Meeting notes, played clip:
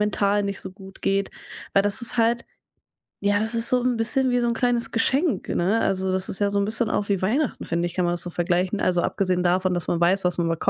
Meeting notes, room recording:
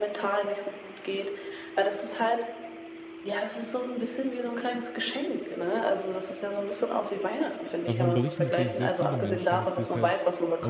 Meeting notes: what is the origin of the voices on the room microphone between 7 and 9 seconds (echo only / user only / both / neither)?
both